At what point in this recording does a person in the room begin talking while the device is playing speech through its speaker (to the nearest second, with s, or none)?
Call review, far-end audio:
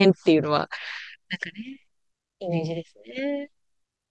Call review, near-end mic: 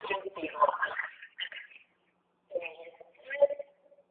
none